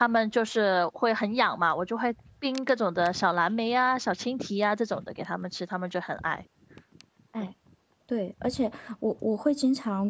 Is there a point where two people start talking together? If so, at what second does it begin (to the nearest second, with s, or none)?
none